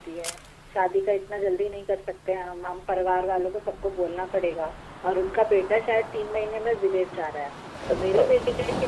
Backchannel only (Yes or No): Yes